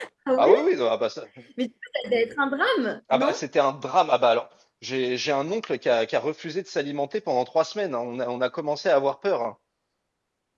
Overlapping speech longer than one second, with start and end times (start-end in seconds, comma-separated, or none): none